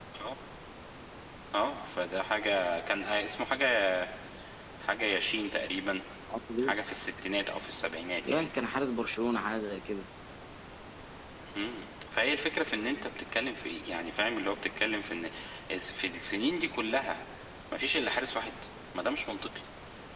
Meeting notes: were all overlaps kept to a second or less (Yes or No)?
Yes